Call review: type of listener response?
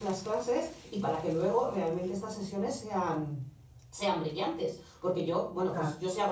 listening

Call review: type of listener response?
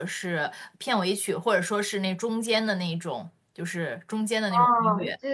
taking over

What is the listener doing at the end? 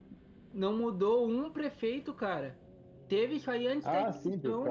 taking over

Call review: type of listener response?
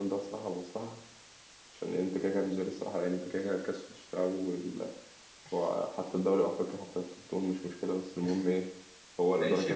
taking over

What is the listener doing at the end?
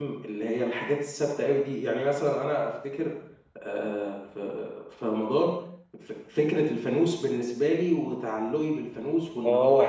taking over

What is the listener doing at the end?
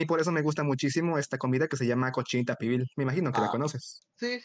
taking over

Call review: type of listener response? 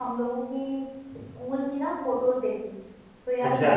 listening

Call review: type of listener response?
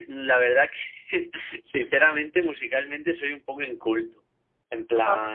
listening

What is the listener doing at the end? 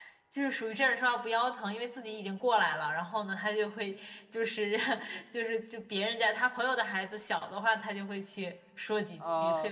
taking over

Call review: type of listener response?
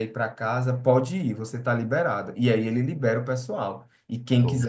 listening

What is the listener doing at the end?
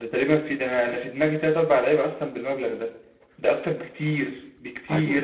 taking over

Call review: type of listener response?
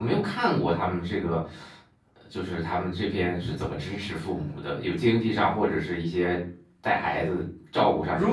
taking over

